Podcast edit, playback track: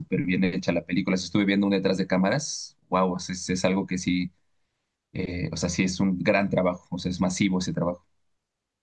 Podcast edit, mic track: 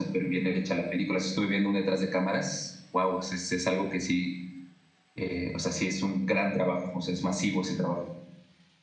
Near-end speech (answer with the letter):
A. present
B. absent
B